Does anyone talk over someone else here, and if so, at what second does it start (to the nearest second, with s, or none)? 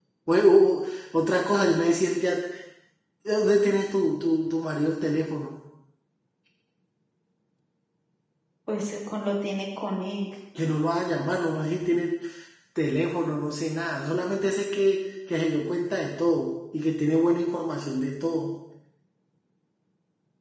none